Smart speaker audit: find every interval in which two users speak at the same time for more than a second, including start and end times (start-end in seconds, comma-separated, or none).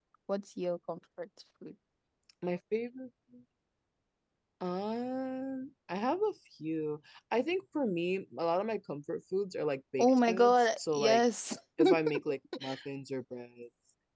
10.0-11.2